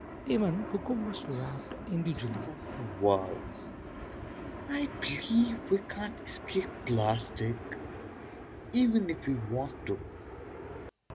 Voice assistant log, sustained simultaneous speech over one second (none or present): none